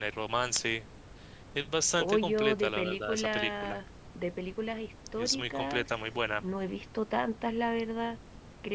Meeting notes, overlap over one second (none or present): present